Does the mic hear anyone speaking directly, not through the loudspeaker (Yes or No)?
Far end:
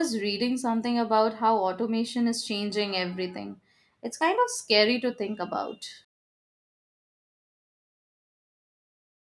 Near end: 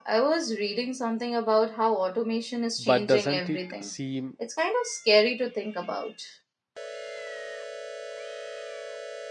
Yes